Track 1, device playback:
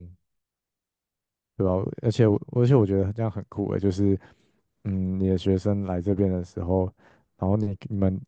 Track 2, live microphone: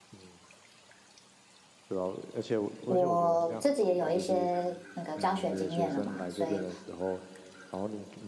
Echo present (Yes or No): Yes